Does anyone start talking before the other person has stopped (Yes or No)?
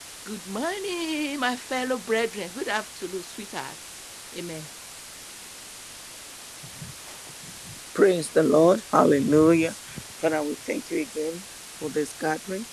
No